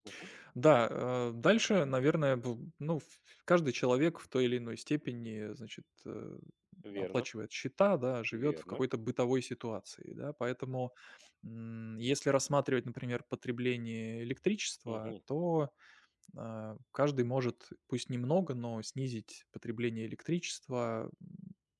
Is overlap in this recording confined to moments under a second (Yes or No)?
Yes